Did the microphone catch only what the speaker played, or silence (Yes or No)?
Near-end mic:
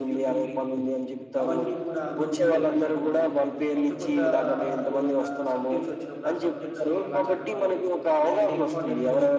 No